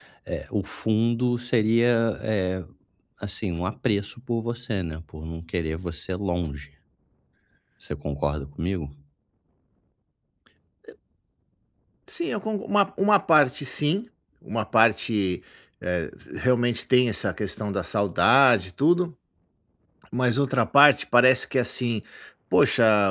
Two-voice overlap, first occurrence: none

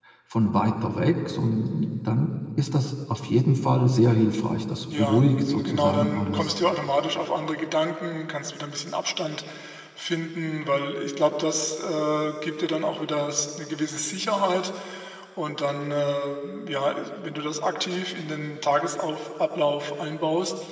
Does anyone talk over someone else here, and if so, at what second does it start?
4.9 s

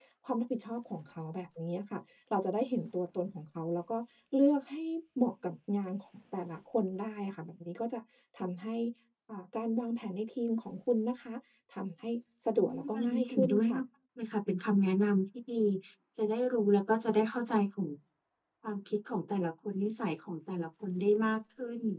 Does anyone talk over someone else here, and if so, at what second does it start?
12.6 s

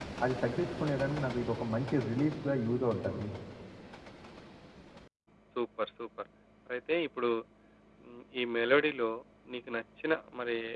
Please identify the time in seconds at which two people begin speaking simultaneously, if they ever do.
none

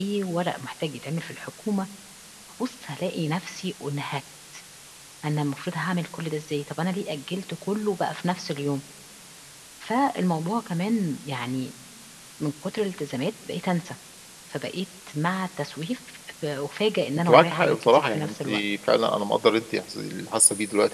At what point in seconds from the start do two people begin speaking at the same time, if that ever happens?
17.2 s

